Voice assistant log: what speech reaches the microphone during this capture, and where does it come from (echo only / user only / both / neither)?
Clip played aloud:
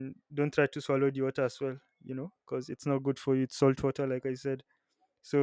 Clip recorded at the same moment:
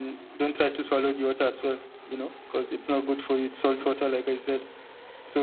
echo only